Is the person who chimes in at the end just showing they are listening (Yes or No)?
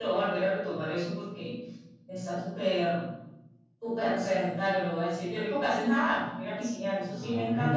No